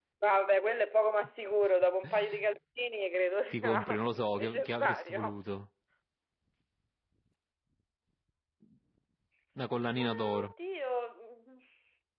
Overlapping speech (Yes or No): Yes